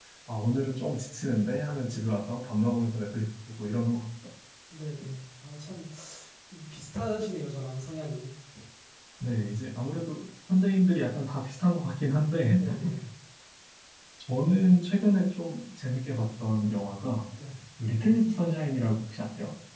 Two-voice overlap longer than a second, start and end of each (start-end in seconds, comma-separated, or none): none